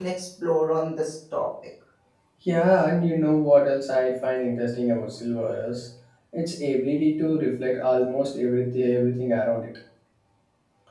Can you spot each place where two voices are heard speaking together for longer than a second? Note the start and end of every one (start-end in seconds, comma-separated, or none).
none